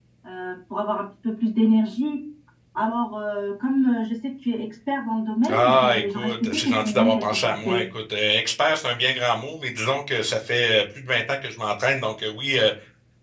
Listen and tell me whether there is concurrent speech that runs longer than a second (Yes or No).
Yes